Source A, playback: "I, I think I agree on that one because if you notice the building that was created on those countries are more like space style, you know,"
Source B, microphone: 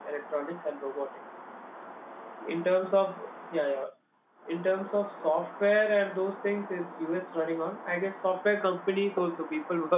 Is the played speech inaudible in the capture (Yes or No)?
Yes